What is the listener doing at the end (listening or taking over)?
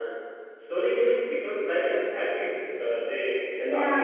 taking over